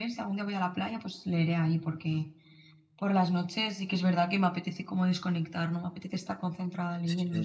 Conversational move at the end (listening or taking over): taking over